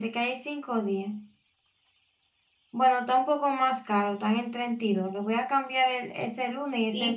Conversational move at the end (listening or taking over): taking over